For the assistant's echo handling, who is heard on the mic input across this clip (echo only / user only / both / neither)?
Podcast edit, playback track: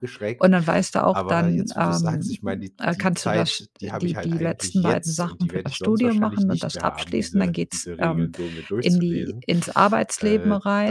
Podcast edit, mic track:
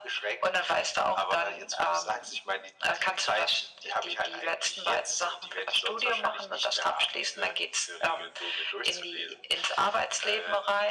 echo only